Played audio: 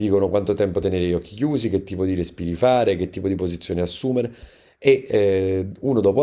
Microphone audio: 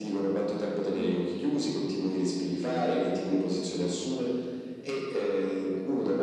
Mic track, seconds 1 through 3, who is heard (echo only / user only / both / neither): both